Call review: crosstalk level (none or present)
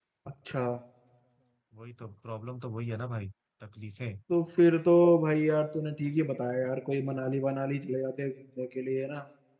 none